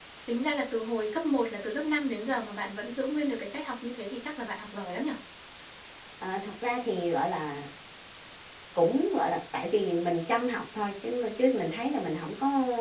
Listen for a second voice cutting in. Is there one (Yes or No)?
No